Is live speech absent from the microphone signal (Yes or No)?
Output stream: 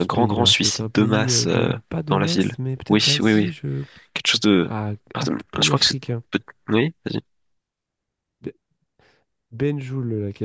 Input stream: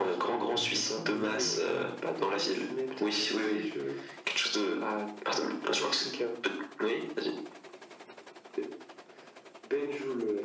No